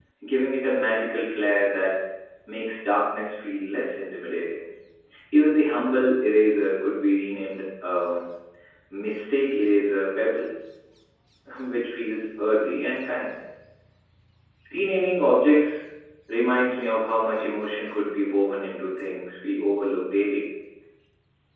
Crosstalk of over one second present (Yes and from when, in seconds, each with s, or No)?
No